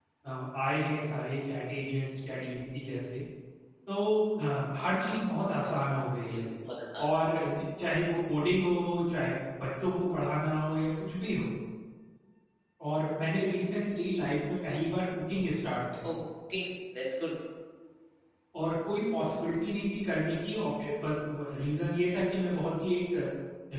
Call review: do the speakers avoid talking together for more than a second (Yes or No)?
Yes